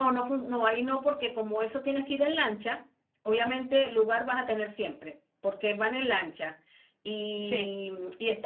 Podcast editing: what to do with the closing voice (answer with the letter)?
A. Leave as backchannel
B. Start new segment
A